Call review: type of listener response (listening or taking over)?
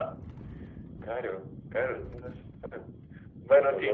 listening